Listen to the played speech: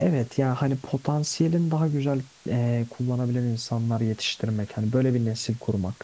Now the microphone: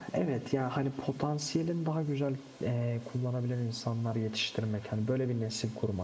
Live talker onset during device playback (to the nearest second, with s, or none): none